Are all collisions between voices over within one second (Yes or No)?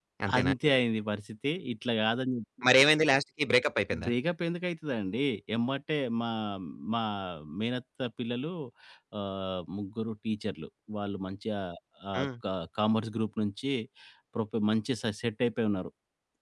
Yes